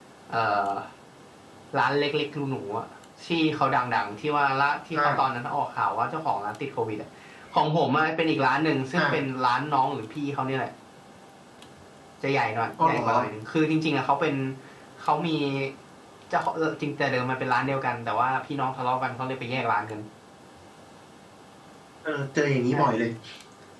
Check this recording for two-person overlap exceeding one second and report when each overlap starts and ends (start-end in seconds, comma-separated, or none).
none